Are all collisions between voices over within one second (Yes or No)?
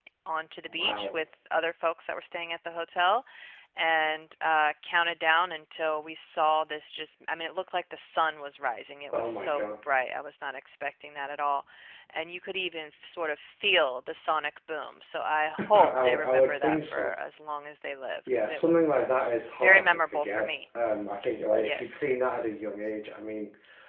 No